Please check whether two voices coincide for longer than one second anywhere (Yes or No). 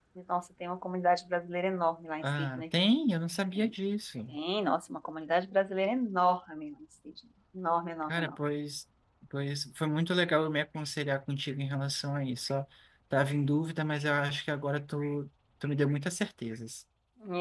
No